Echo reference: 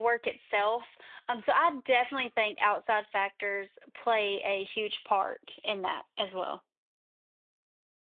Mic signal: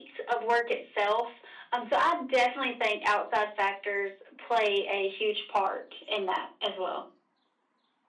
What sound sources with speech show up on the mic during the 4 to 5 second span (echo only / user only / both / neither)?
echo only